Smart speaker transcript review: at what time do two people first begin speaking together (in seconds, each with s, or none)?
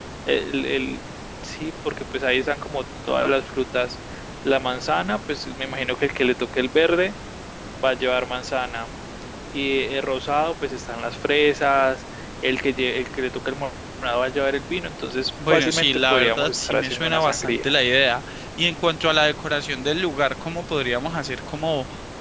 15.4 s